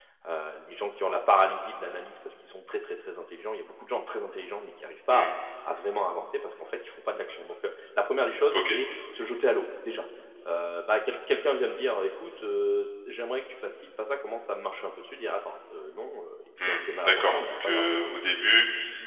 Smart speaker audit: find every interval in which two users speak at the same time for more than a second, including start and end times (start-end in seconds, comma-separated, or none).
16.6-17.9